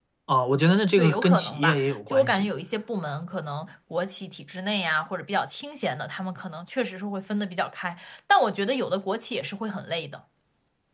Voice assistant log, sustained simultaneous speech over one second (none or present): present